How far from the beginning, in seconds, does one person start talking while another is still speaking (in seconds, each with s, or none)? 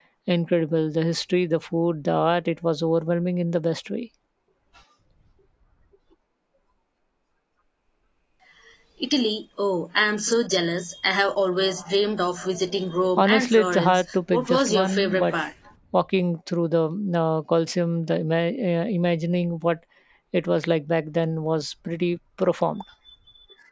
13.2 s